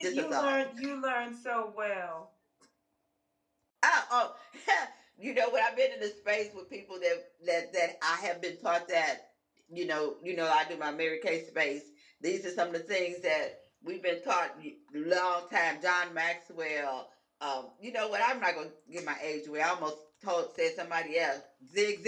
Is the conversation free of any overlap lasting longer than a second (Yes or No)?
Yes